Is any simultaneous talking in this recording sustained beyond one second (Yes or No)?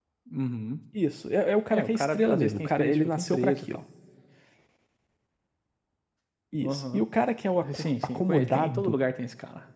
Yes